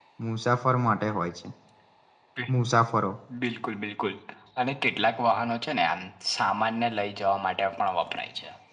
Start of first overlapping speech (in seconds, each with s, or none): none